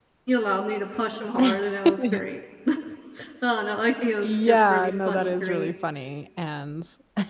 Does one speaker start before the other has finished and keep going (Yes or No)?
Yes